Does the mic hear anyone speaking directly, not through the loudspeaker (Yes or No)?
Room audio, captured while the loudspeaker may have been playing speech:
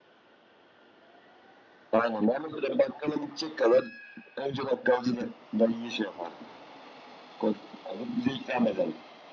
No